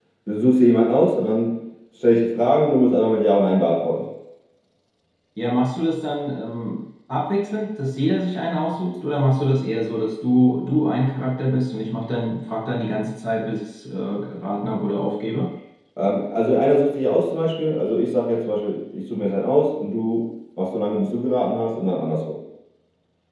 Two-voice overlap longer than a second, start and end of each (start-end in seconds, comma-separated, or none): none